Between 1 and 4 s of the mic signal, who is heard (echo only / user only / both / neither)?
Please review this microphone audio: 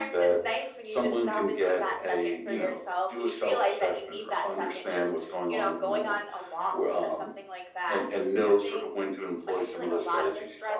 echo only